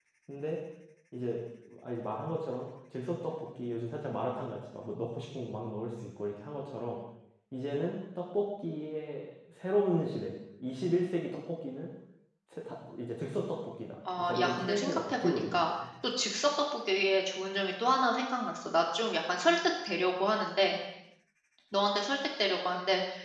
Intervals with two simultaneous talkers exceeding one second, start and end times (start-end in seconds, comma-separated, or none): 14.2-15.7